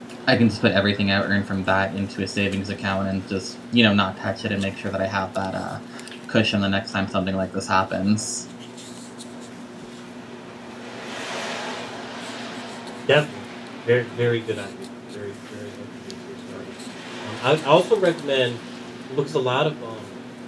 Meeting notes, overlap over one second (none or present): none